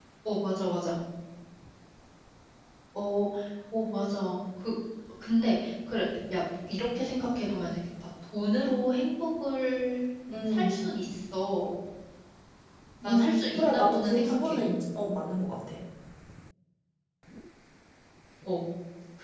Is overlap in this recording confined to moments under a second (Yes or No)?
No